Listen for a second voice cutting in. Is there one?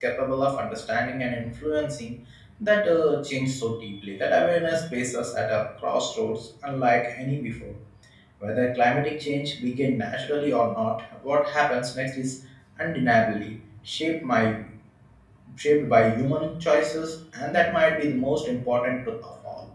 No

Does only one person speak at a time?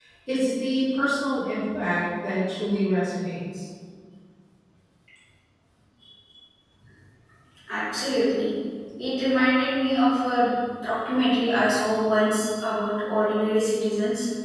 Yes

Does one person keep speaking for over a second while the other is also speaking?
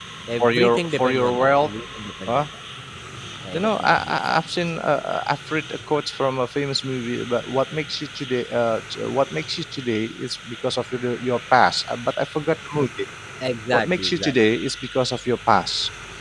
Yes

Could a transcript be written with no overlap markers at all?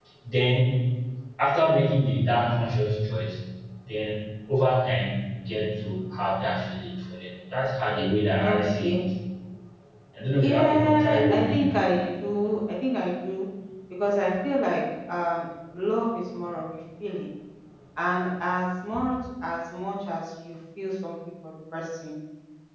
No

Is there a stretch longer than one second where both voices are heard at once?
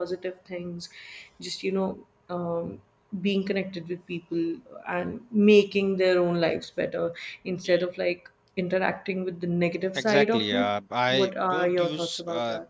Yes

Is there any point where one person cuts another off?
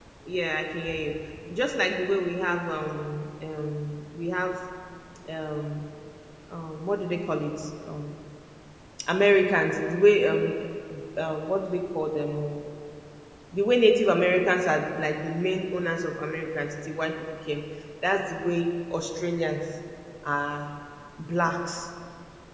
No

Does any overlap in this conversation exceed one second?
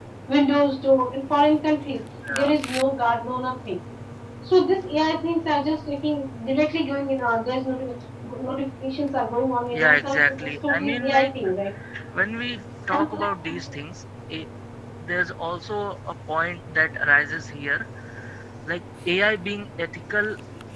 Yes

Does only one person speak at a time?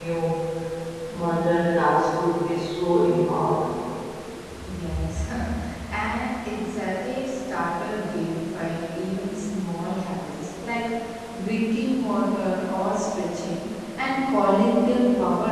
Yes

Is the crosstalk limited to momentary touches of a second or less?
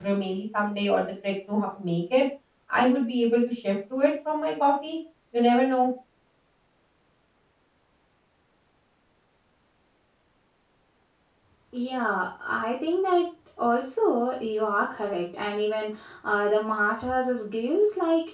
Yes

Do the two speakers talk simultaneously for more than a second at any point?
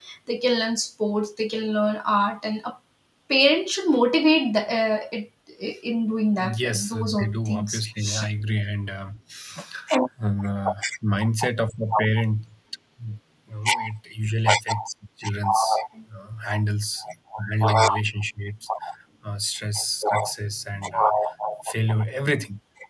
Yes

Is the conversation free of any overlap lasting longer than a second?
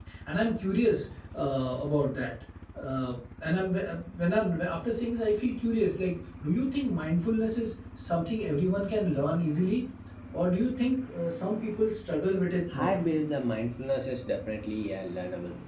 Yes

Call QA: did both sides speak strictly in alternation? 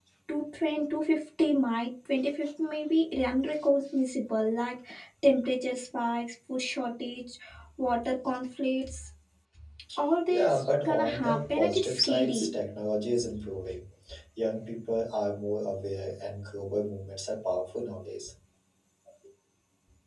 No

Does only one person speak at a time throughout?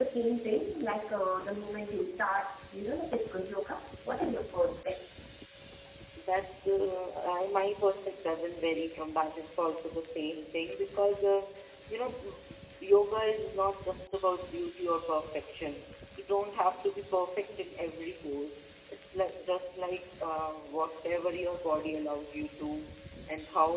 Yes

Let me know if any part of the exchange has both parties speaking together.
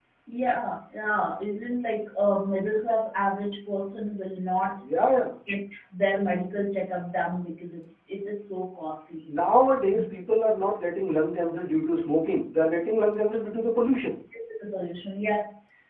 No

